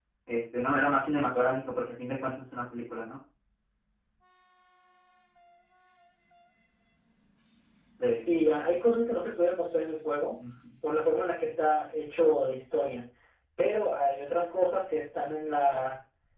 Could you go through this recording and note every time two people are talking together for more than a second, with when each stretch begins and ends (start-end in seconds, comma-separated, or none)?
none